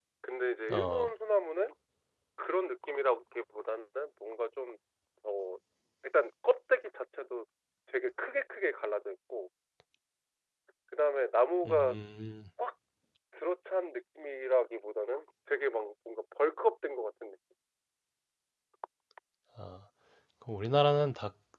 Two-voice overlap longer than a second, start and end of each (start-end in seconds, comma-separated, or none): none